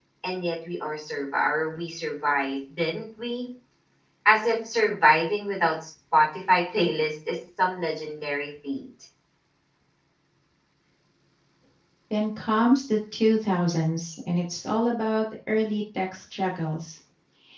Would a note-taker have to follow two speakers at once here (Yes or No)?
No